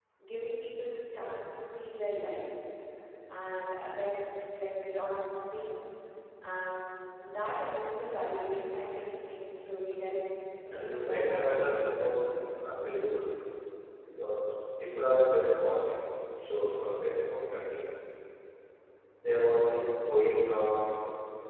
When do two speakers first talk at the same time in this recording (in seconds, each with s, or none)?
10.6 s